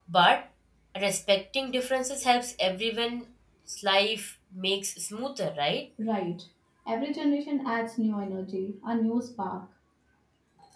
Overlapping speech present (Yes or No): No